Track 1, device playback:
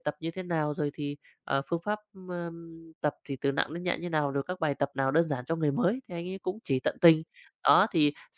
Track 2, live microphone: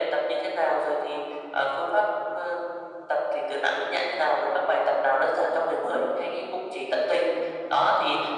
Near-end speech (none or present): none